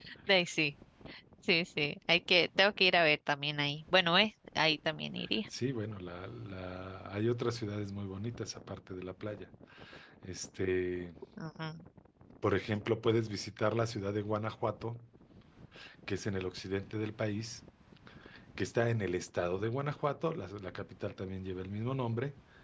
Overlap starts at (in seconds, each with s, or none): none